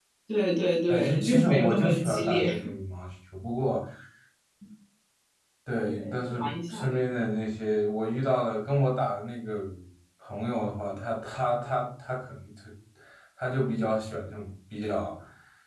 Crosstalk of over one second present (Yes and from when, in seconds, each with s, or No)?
Yes, from 0.9 s